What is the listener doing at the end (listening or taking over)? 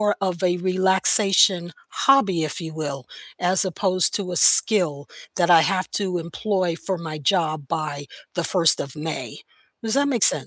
taking over